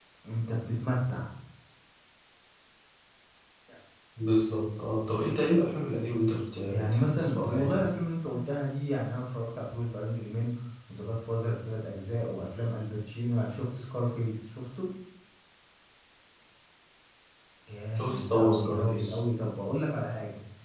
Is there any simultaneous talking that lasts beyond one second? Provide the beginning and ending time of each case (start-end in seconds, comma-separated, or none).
6.7-7.9, 18.0-19.2